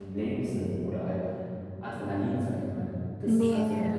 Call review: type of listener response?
taking over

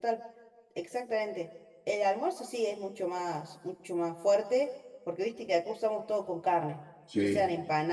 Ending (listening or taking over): listening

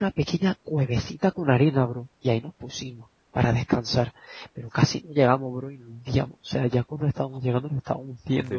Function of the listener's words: taking over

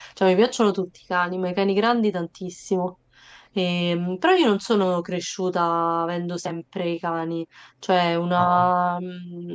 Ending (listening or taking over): listening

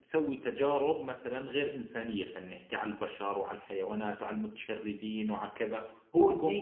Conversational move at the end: taking over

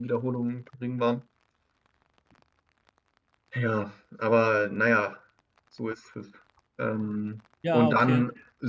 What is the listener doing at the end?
listening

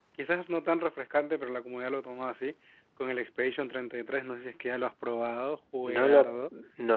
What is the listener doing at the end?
taking over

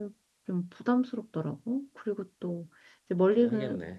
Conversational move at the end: listening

